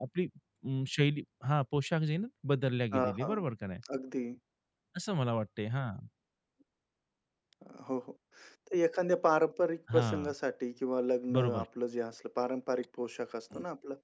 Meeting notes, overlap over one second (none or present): none